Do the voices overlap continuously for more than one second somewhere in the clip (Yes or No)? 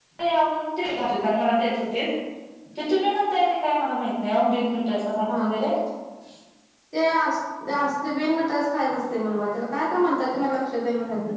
No